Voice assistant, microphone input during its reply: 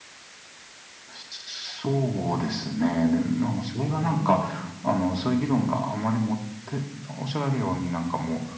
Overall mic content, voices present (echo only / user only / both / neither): both